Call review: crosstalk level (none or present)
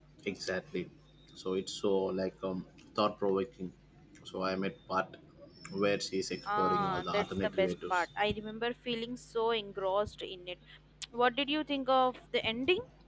present